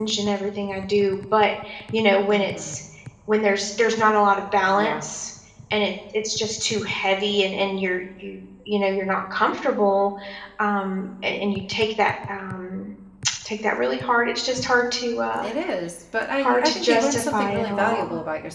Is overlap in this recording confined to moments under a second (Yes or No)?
No